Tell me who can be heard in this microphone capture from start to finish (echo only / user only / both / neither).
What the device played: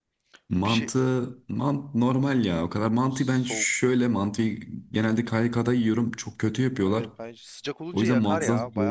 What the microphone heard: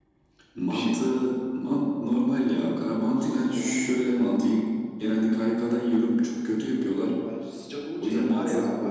echo only